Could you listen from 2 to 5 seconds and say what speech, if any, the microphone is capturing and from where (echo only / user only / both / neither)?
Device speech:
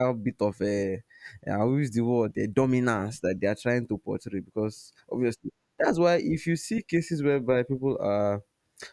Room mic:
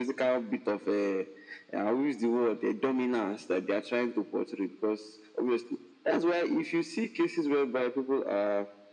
echo only